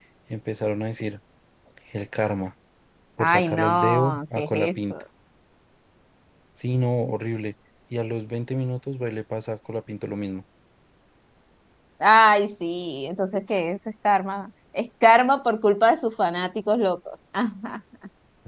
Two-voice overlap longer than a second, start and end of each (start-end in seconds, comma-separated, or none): 3.2-4.9